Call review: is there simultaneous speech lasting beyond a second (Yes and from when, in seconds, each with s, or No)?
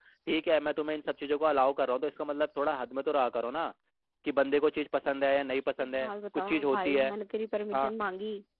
Yes, from 5.8 s